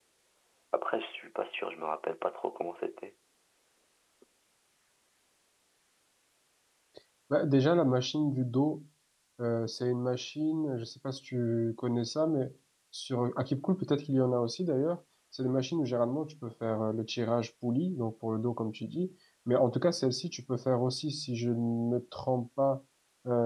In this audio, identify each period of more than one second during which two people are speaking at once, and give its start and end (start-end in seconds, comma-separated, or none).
none